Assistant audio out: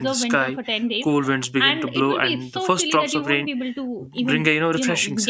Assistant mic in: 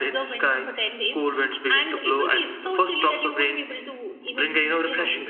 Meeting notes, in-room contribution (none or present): none